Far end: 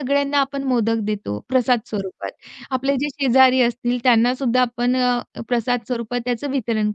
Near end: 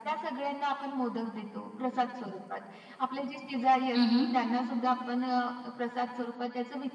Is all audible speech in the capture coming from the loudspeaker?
No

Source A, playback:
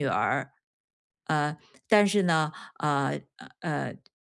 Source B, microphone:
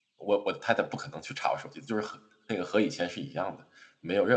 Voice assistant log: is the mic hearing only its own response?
No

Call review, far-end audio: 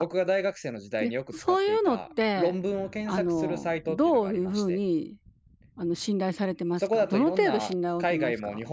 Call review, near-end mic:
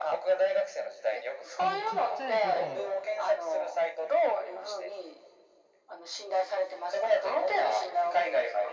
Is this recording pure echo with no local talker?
No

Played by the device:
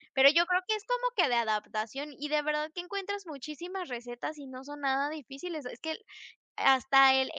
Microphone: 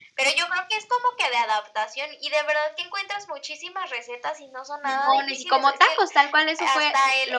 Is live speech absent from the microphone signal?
No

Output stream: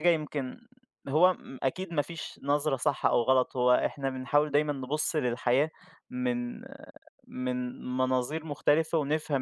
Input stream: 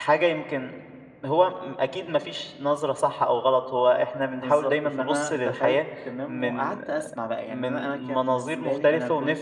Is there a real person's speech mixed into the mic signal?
Yes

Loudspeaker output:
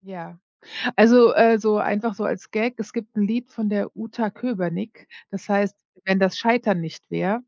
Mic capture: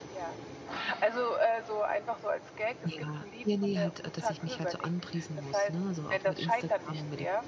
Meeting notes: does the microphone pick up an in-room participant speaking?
Yes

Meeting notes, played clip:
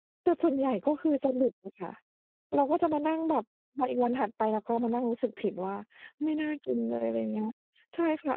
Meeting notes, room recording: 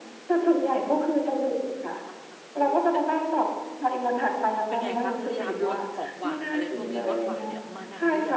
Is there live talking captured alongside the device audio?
Yes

